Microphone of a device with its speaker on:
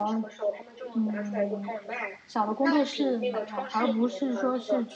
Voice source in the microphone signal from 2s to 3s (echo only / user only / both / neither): both